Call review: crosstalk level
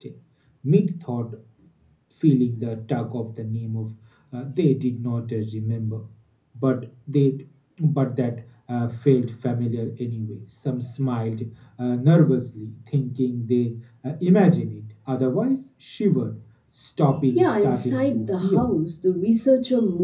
present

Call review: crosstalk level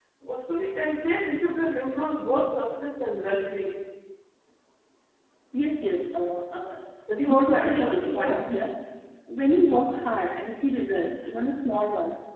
present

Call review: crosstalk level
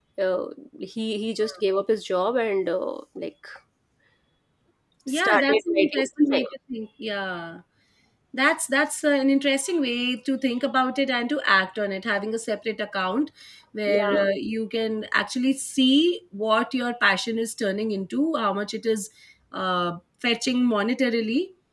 present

